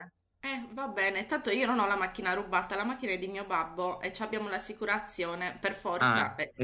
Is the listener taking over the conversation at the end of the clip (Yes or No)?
Yes